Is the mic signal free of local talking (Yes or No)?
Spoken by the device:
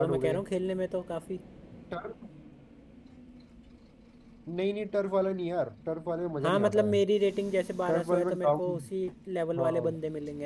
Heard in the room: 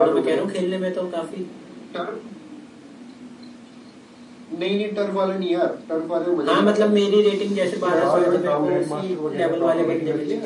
No